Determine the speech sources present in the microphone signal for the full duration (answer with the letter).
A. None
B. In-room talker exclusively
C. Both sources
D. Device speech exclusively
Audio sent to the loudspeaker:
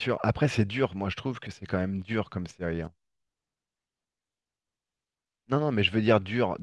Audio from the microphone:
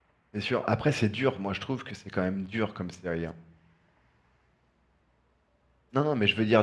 D